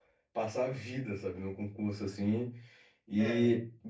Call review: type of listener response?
listening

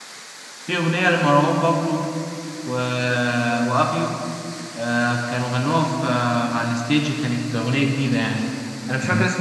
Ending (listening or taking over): listening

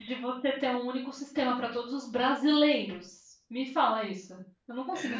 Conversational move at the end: taking over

